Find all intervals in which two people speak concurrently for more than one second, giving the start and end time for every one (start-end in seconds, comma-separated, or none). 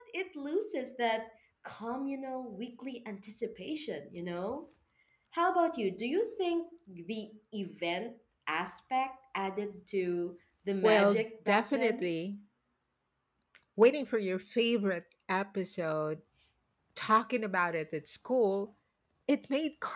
10.8-12.1